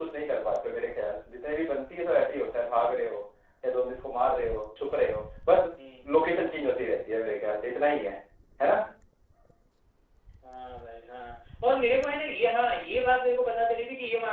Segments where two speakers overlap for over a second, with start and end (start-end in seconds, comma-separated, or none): none